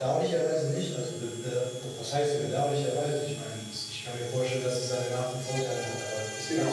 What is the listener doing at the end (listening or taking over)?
taking over